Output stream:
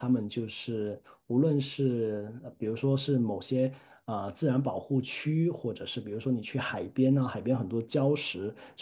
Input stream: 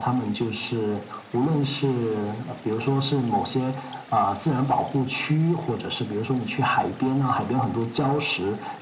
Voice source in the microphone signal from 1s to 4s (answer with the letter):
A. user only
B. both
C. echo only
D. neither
C